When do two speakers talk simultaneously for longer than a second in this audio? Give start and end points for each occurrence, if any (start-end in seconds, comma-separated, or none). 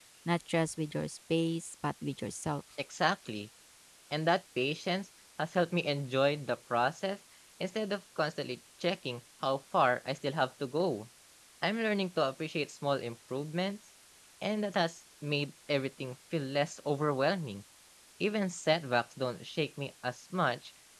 none